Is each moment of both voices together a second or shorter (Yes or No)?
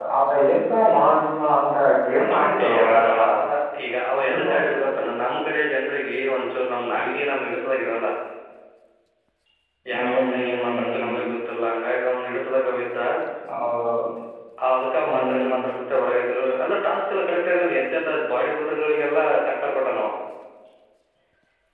No